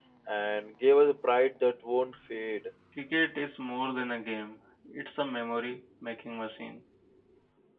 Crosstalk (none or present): none